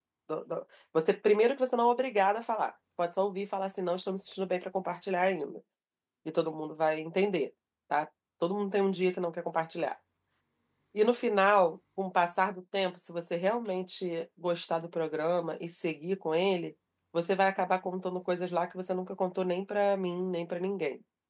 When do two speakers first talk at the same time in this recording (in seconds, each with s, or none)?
none